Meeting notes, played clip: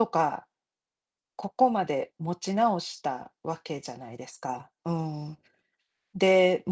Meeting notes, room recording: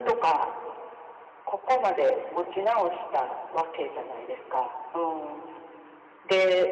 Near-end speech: none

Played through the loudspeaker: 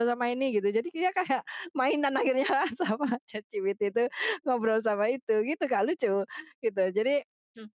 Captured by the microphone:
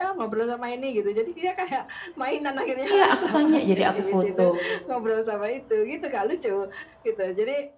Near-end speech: present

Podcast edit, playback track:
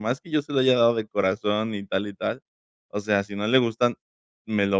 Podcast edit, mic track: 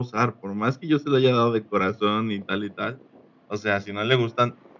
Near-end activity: none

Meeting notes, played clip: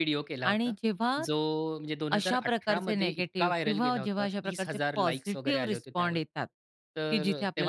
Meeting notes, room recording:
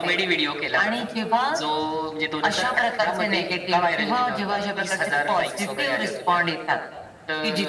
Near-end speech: none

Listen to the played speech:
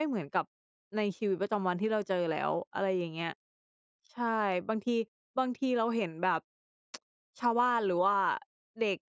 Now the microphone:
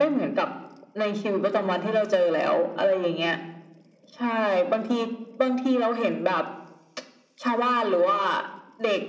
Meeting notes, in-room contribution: none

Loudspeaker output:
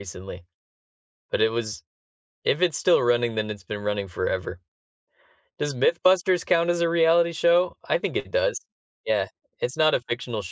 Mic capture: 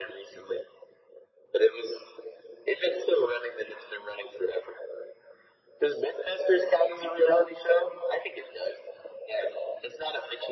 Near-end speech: none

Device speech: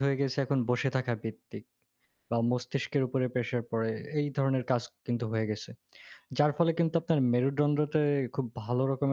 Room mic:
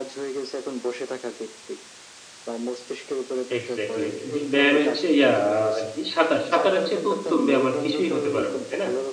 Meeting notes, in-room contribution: present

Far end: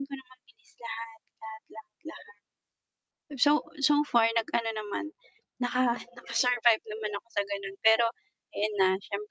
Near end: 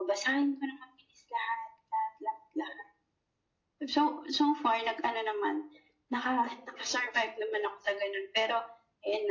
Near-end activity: none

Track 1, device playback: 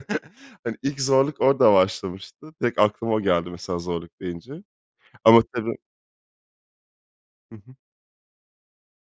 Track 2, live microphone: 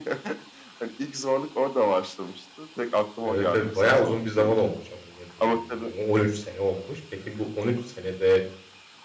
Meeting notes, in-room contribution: present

